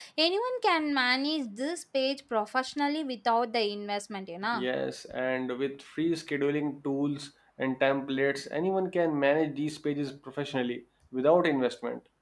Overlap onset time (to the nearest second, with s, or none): none